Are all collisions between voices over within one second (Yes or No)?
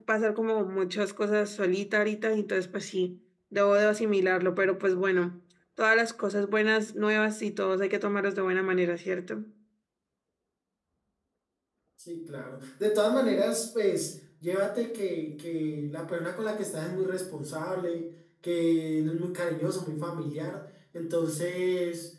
Yes